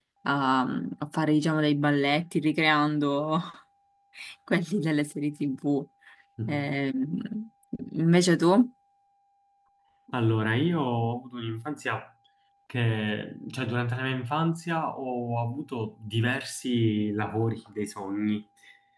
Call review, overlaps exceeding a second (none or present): none